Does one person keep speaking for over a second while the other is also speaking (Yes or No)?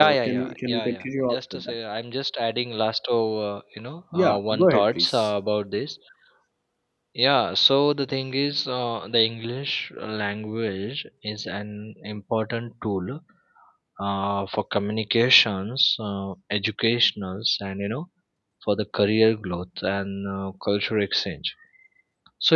Yes